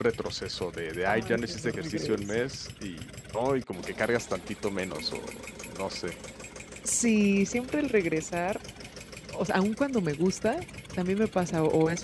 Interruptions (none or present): present